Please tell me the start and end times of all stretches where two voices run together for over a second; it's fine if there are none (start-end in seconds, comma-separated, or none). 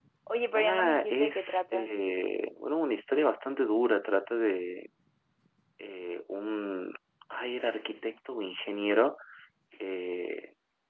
0.6-1.9